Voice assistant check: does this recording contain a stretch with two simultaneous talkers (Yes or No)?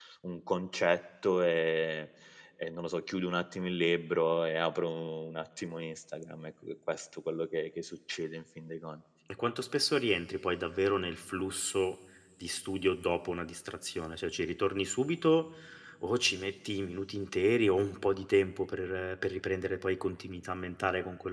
No